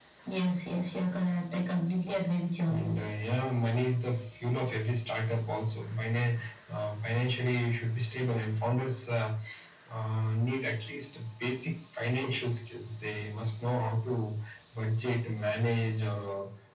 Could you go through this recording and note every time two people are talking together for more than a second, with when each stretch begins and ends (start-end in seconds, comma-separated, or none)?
none